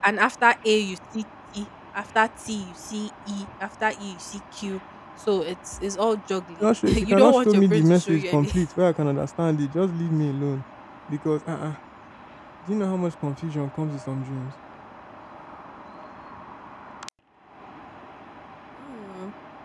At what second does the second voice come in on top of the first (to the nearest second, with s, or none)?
7 s